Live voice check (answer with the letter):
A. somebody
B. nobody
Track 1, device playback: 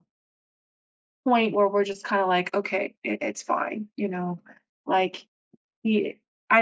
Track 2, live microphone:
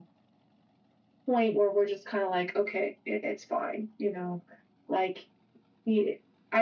B